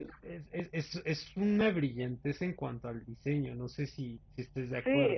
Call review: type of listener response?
taking over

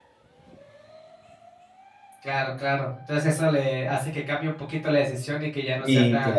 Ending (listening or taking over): taking over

